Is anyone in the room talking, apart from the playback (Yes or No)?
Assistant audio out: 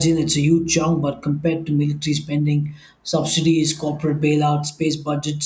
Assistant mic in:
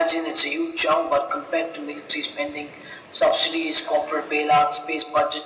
No